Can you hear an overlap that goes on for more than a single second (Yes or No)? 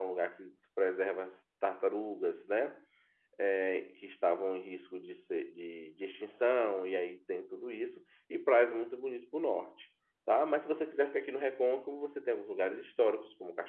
No